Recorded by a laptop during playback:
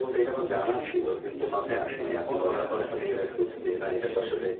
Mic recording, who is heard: both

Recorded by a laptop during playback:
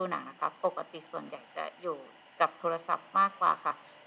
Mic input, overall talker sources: echo only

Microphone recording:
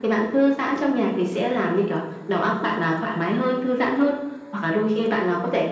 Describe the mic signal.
echo only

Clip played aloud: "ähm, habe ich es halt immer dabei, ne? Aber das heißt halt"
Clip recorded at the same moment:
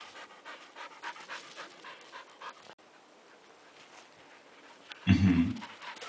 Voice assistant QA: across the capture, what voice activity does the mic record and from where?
user only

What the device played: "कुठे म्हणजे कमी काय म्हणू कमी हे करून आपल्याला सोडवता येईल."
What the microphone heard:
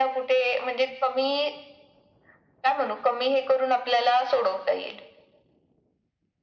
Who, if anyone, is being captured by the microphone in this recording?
echo only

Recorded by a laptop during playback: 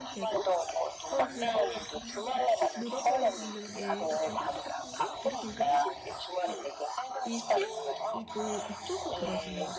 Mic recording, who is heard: both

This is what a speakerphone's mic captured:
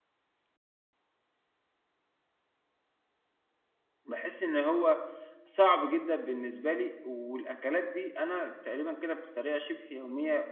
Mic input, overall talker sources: user only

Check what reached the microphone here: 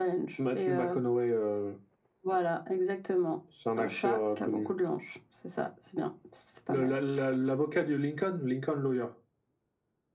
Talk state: echo only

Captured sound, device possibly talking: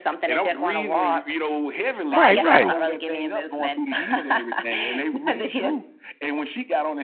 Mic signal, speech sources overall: both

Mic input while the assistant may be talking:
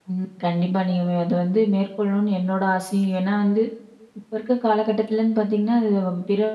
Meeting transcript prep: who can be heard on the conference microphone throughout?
user only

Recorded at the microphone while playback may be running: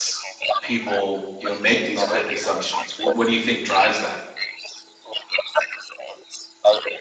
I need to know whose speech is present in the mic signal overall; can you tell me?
both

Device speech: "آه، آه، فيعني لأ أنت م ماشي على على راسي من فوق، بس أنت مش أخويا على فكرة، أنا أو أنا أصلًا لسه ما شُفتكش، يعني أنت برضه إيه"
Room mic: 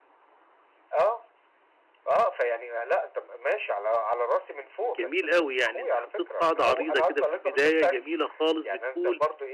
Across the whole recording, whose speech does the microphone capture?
both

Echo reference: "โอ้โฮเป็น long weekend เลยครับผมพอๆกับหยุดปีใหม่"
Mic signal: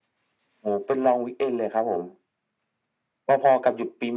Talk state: echo only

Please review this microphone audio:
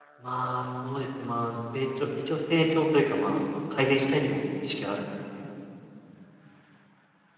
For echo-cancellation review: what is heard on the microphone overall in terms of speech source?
echo only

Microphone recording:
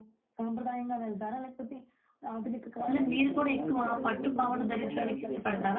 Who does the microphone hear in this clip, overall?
both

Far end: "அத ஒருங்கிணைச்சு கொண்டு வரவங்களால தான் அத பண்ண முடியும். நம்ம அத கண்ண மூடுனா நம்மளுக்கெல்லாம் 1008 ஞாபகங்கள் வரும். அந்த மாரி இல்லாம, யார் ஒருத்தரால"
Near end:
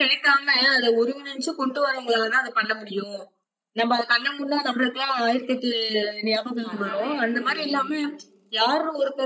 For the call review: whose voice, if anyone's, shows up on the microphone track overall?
both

